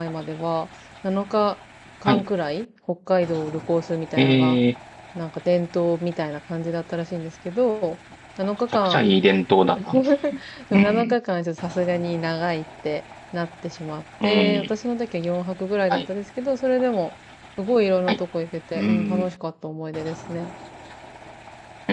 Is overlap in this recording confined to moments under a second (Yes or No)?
Yes